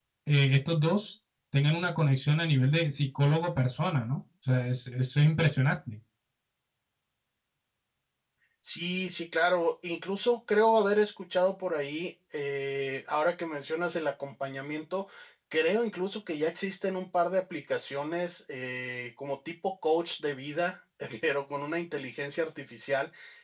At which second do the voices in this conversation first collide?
none

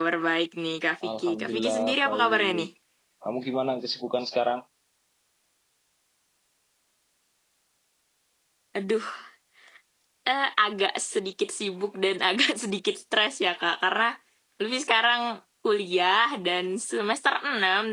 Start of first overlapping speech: 1.2 s

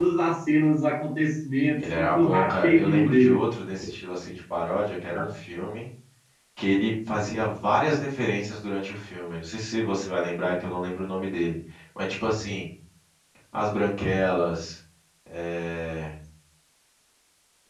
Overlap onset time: 1.8 s

